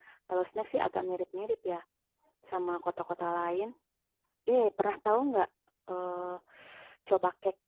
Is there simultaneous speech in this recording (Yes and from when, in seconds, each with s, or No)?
No